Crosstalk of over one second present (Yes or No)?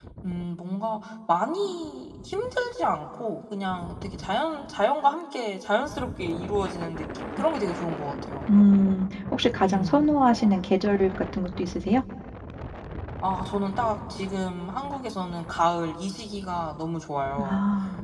No